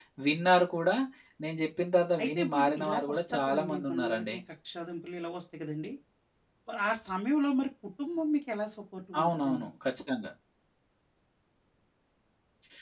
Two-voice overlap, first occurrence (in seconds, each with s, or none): 2.2 s